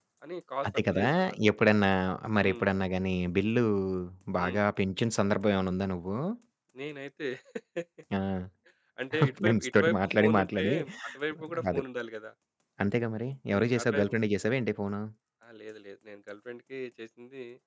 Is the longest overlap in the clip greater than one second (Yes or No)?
Yes